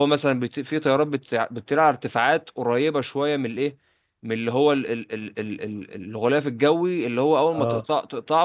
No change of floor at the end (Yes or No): Yes